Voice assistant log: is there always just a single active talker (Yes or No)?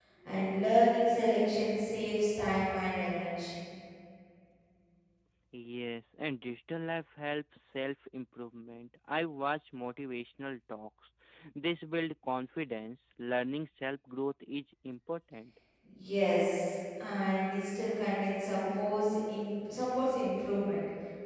Yes